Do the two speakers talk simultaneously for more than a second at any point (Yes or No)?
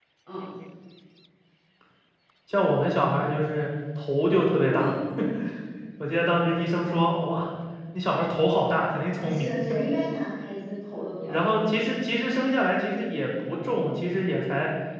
No